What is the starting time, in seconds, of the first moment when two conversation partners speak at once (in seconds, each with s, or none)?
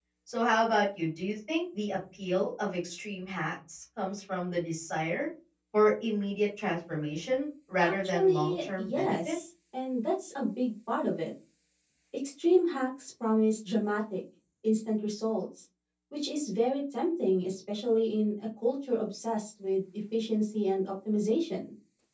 7.8 s